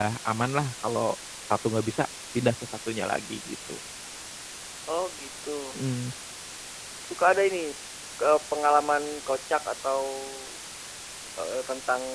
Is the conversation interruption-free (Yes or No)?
Yes